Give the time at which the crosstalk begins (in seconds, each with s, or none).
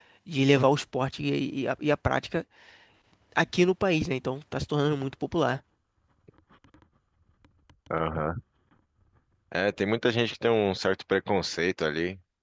none